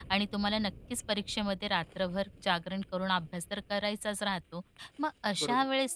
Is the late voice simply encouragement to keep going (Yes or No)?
Yes